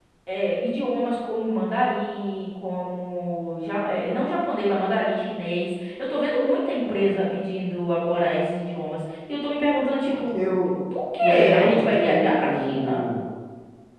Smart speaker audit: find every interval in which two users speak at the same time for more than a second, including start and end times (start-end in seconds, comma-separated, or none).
11.2-13.0